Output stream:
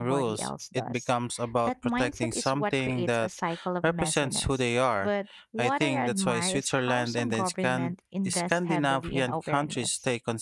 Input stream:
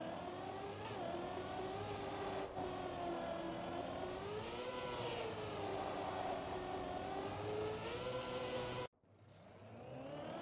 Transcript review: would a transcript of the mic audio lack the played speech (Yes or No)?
Yes